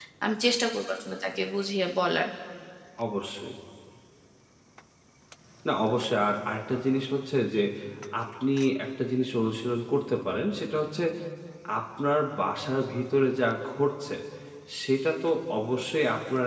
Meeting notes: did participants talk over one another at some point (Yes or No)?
No